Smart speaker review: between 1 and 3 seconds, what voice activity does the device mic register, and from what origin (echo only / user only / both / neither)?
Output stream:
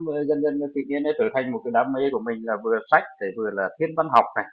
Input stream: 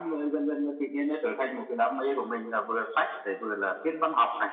echo only